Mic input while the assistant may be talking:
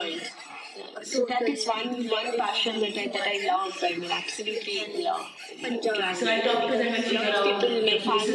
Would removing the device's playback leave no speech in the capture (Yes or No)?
No